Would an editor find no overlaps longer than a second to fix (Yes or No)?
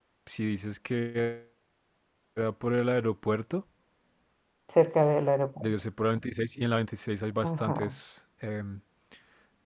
Yes